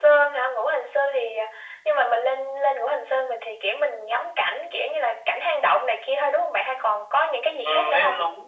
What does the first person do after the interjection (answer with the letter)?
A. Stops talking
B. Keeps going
A